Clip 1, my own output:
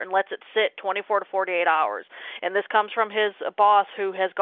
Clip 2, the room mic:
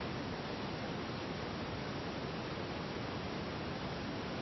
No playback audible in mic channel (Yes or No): Yes